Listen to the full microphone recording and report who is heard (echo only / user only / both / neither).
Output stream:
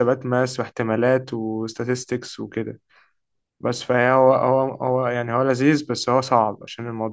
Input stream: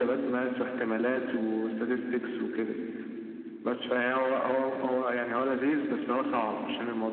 echo only